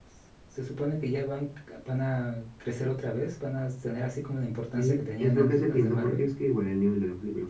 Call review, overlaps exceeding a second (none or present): present